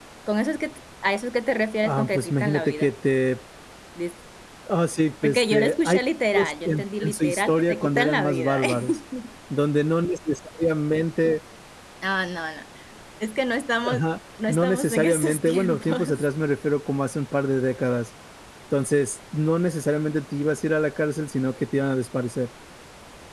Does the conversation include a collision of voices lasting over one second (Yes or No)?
Yes